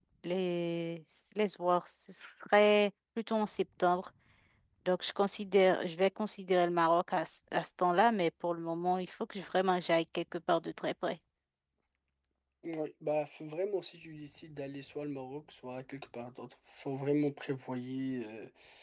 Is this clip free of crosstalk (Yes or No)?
Yes